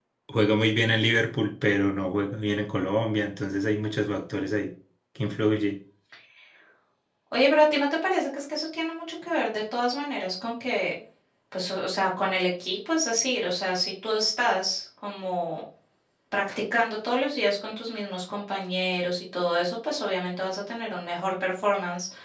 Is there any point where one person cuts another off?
No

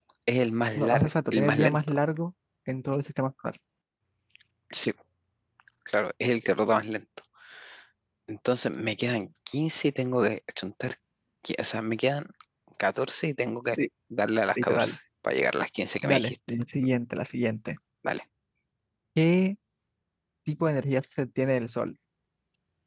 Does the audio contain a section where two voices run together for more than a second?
Yes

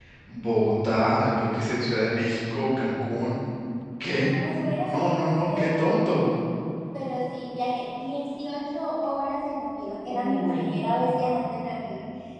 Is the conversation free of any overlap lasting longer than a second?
No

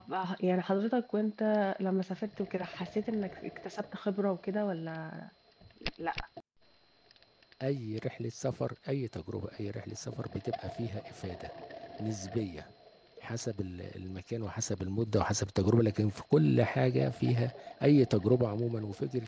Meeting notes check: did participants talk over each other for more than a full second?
No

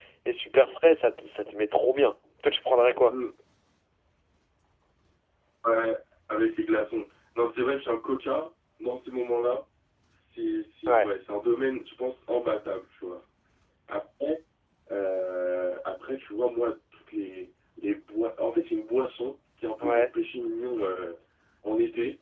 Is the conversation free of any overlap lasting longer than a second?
Yes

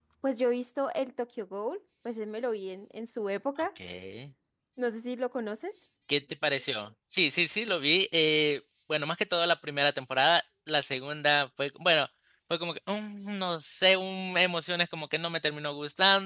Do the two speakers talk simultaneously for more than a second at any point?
No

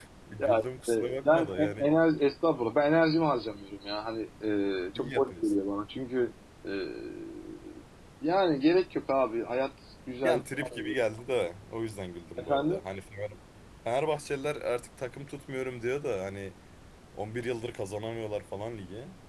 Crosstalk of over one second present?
Yes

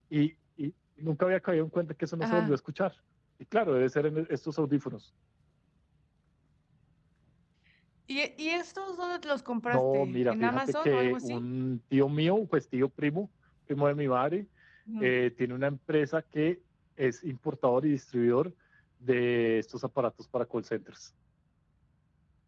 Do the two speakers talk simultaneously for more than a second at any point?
Yes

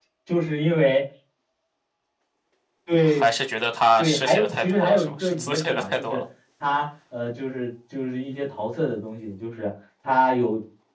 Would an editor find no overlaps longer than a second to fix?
No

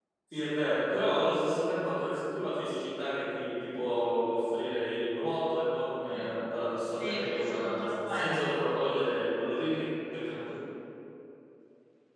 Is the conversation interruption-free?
No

